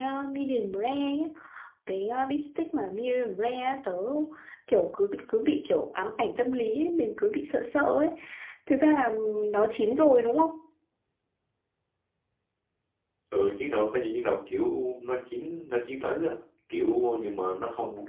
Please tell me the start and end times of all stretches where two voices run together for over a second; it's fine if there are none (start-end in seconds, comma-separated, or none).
none